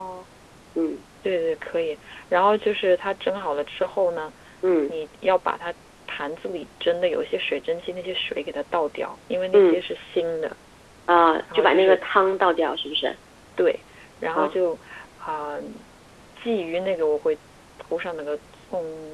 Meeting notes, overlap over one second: none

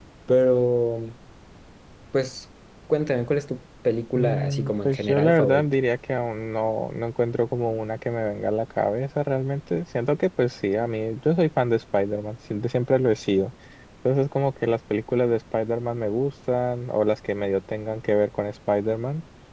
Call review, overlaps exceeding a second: present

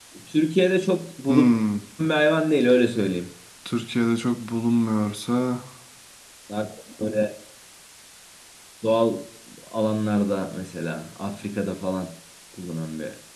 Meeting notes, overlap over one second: none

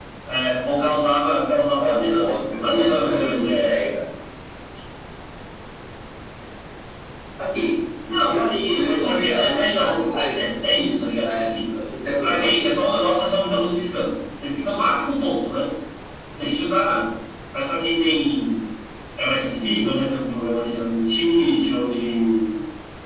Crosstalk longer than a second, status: present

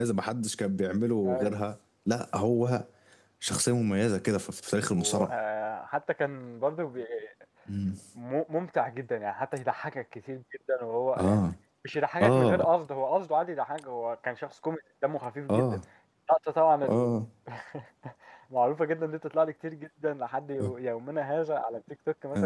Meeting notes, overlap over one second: none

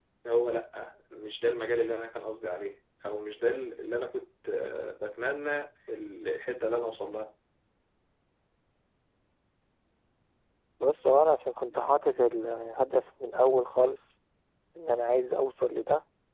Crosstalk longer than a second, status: none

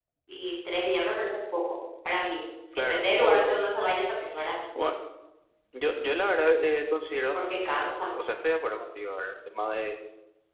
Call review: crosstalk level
present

